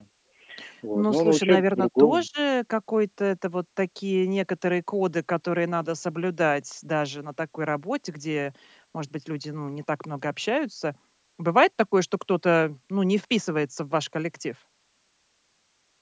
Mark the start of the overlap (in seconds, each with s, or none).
0.9 s